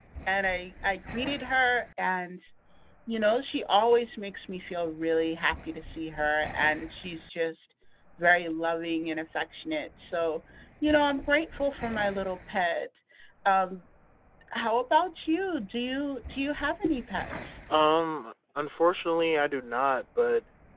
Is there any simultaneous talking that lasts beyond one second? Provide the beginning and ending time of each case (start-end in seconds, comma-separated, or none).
none